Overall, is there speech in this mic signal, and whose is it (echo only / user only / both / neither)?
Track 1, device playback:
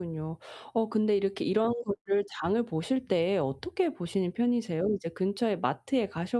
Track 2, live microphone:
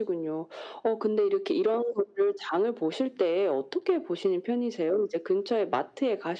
echo only